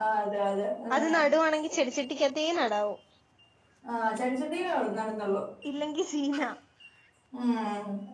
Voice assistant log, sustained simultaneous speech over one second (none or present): none